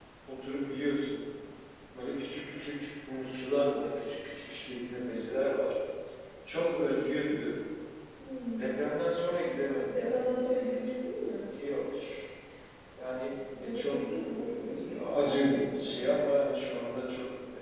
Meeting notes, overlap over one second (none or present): present